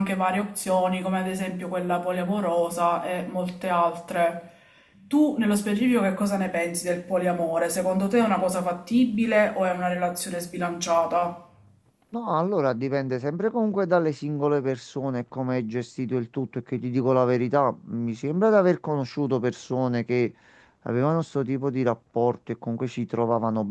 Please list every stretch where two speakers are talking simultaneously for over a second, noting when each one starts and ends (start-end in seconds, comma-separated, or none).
none